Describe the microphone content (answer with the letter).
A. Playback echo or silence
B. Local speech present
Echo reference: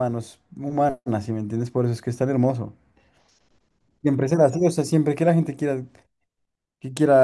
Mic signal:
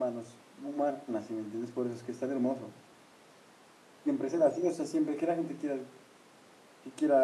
A